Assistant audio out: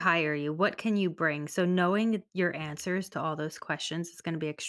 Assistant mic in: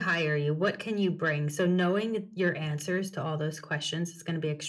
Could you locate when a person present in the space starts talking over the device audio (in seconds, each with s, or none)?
none